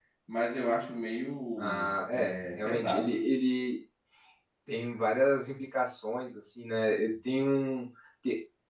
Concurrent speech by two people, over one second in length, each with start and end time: 1.6-3.2

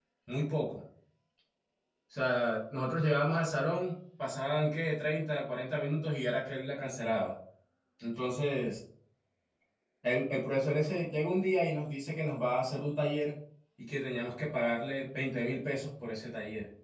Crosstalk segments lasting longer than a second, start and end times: none

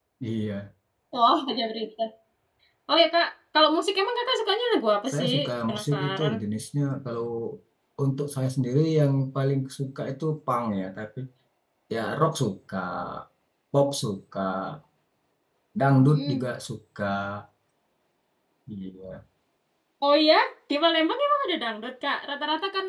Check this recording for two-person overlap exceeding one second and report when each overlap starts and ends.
5.1-6.3

